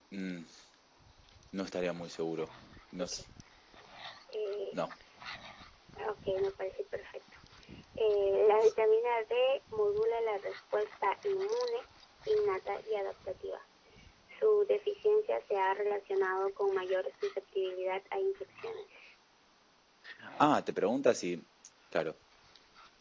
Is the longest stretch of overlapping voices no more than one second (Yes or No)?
Yes